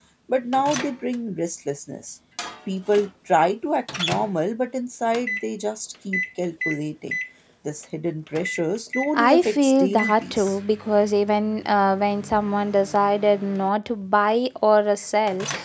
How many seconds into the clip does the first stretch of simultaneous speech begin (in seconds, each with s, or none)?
9.1 s